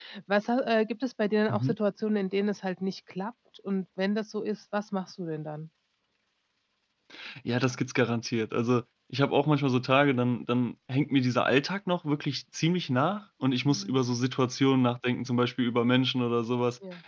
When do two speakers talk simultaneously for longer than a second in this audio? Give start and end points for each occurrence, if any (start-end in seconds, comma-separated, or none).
none